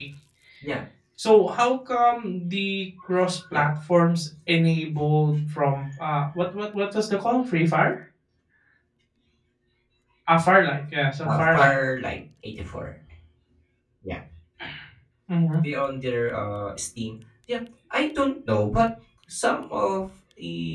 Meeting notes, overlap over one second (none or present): none